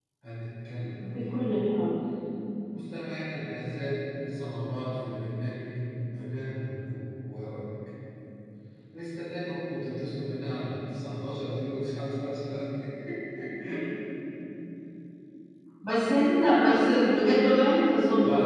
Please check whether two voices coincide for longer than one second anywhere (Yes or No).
No